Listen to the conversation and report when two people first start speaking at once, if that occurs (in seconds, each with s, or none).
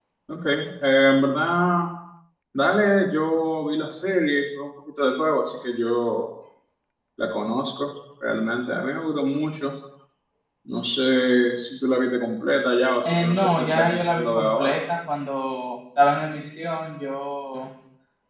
13.0 s